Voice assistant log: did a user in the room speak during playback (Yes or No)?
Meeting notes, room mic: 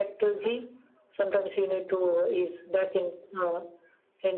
No